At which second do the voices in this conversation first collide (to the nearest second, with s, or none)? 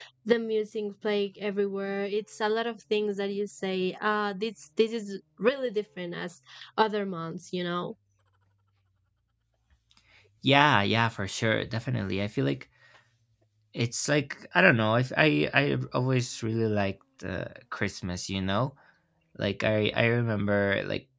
none